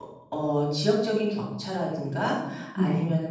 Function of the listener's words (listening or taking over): listening